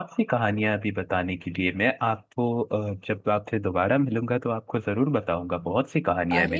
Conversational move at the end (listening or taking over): taking over